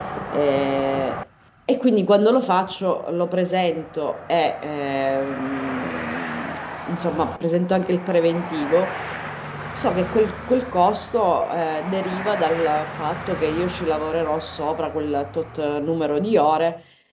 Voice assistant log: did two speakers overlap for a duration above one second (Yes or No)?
No